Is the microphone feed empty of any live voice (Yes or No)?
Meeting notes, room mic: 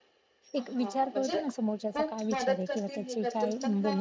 No